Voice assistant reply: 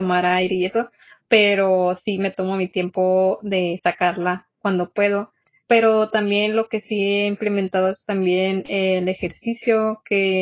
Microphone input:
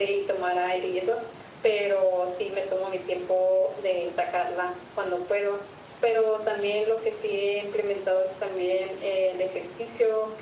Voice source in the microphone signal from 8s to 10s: echo only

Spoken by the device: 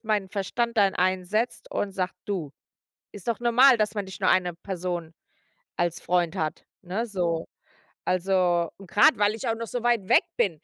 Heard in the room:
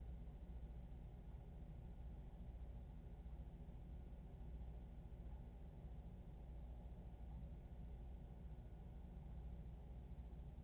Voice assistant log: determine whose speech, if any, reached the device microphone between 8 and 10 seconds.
neither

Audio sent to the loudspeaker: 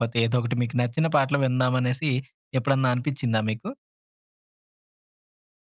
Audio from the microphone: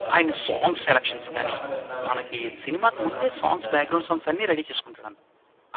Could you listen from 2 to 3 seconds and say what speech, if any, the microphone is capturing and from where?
both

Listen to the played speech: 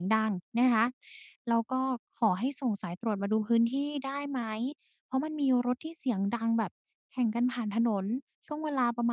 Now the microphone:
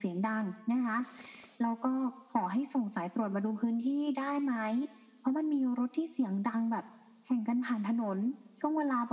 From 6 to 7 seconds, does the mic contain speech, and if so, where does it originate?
echo only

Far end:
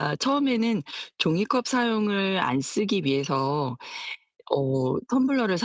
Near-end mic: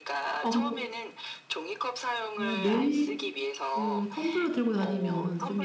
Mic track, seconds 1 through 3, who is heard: both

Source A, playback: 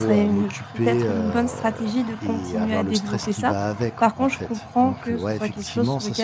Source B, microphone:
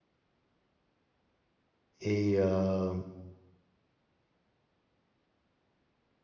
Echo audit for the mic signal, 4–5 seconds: neither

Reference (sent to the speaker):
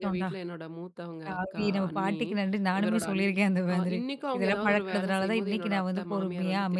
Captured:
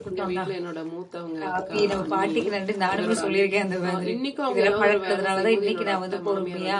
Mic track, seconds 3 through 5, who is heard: echo only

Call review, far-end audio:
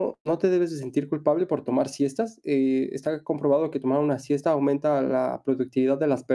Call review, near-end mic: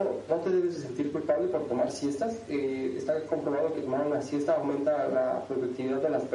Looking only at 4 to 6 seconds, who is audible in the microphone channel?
echo only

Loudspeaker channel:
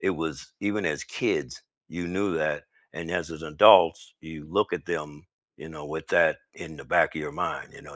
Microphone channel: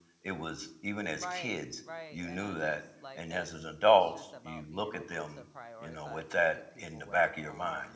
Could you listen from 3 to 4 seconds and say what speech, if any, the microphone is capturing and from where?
both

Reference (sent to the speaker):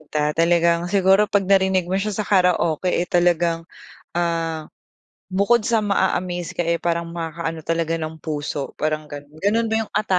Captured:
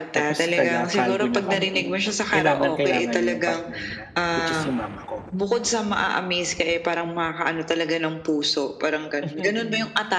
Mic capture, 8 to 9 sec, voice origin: echo only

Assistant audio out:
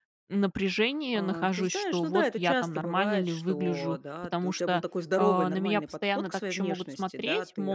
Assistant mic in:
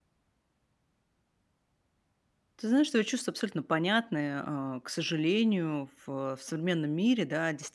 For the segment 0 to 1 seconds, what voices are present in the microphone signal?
neither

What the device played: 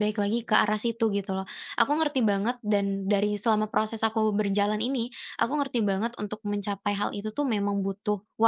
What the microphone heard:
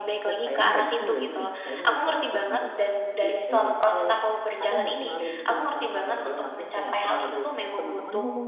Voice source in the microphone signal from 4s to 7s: both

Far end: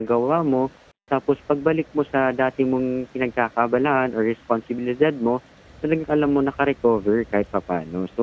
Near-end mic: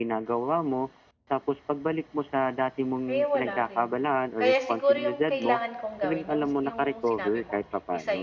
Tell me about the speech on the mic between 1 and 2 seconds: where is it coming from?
echo only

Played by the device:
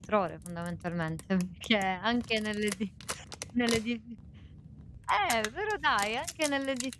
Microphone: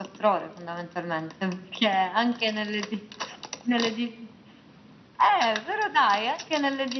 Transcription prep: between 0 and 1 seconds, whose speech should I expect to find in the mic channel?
echo only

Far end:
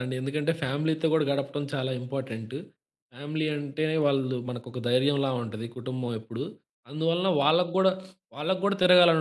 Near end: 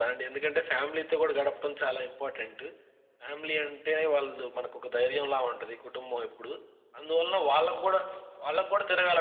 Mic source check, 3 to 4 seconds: echo only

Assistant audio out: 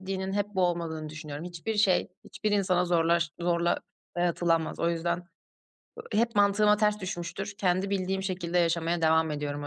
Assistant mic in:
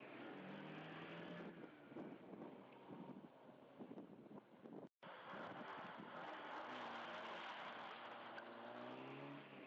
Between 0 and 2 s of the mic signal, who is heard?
neither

